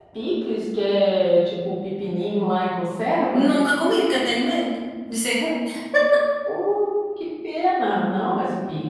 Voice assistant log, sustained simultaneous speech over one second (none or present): none